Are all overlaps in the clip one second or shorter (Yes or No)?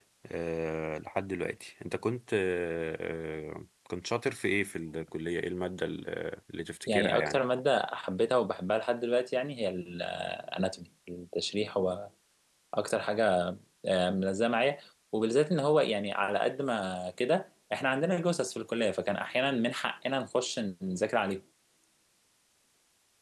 Yes